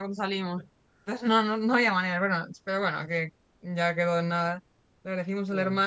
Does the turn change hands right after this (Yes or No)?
No